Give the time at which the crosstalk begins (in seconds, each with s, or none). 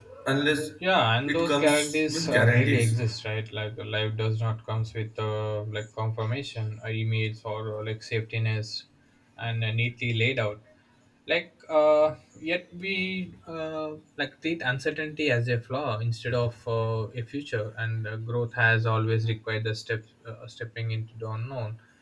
1.3 s